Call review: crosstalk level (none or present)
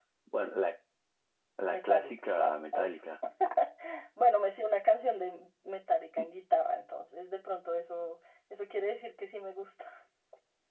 present